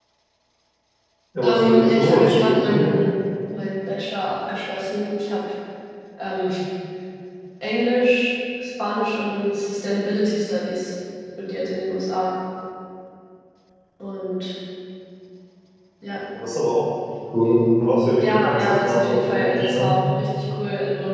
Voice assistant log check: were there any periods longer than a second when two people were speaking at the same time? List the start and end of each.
1.4-2.9, 18.2-19.9

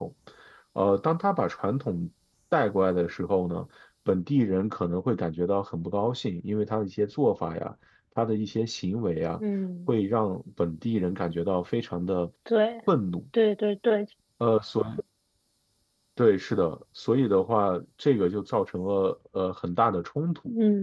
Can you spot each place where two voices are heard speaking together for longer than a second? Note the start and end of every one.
none

